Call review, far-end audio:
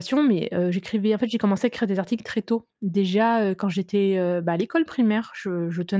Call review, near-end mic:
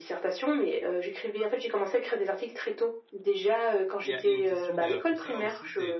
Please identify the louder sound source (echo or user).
echo